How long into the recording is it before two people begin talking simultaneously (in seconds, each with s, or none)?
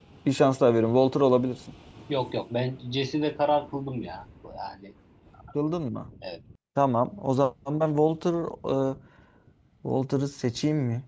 none